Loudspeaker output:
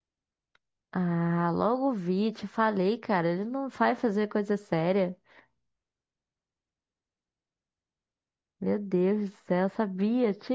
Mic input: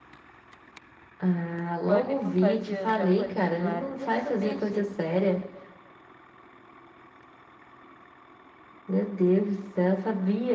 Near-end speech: present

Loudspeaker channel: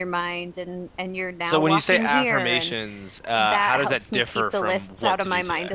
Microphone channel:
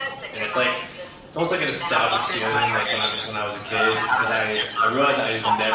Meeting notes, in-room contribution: present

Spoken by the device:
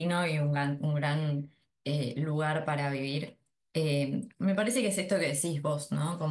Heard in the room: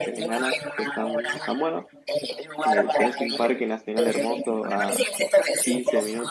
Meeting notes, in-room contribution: present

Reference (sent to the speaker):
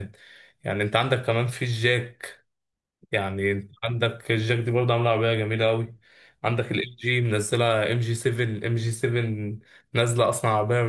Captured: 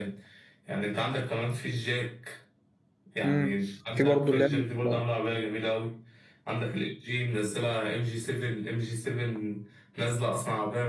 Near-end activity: present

